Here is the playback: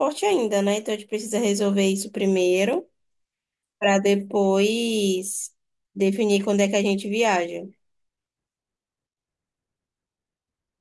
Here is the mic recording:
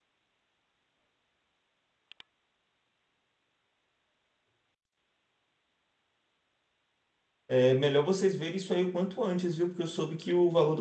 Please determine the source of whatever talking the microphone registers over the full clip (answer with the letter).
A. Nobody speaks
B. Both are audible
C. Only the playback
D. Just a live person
D